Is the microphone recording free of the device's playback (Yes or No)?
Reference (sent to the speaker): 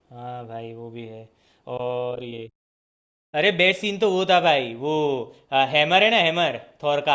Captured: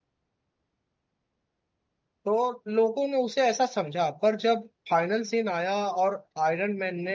Yes